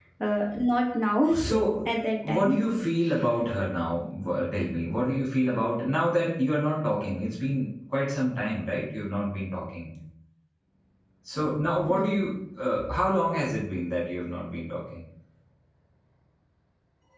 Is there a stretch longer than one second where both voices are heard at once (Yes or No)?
No